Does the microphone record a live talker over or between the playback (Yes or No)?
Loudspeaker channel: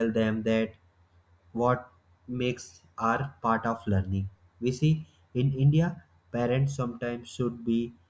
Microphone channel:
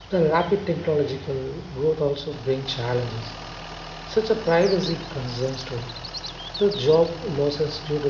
Yes